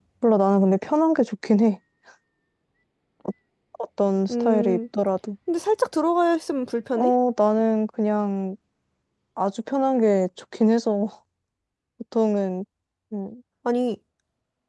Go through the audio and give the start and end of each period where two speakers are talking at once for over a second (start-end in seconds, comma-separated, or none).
none